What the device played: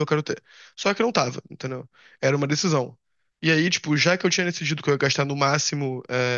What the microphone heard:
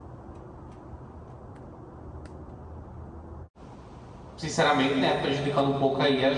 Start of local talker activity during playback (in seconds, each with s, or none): 4.3 s